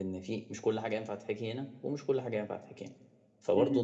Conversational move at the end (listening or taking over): listening